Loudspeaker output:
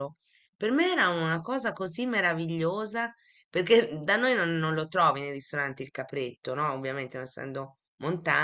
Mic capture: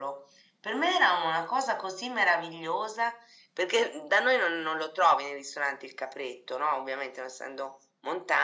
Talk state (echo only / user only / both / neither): echo only